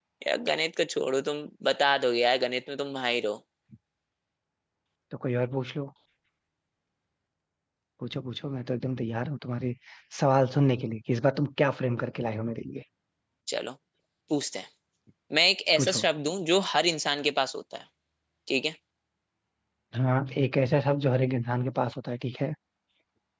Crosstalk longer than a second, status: none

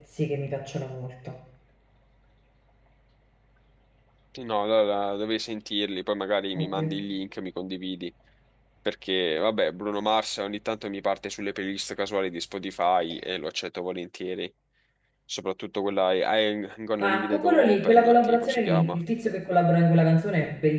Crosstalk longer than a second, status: present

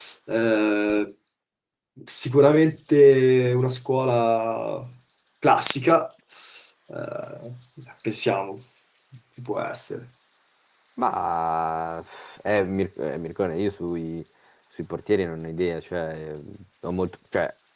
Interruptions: none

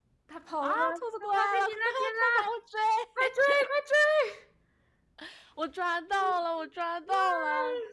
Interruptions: present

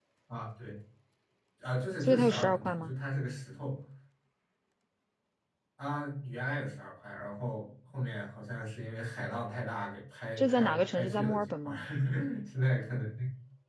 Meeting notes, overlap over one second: present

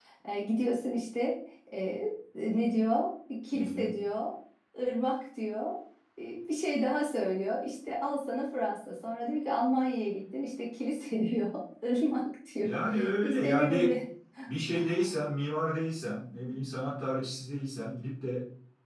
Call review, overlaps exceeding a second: present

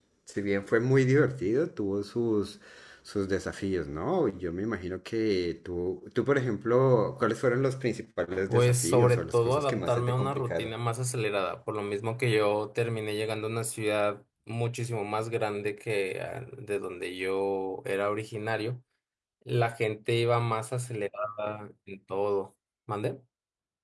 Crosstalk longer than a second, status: present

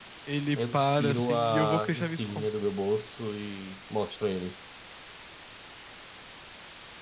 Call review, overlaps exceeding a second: present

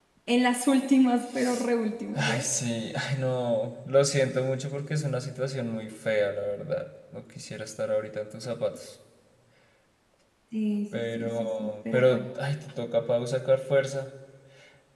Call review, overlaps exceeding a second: present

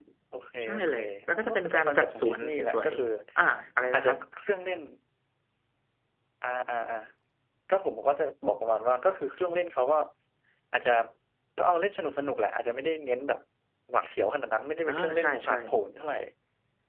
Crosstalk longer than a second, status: present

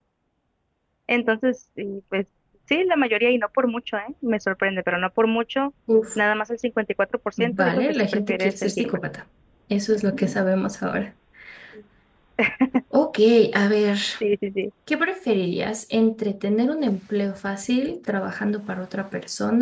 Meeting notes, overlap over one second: present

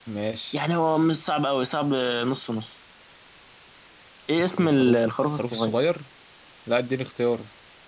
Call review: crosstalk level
present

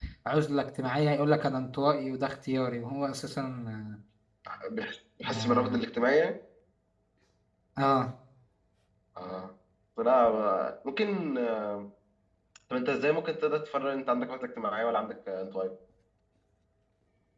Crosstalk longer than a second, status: none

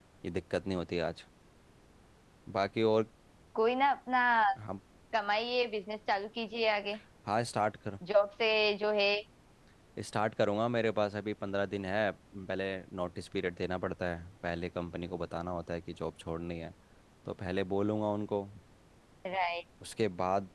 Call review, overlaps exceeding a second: none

